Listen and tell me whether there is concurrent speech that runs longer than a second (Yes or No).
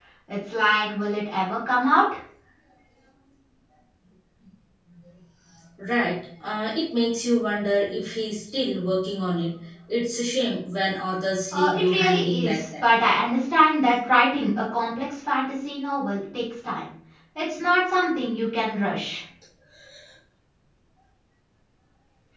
Yes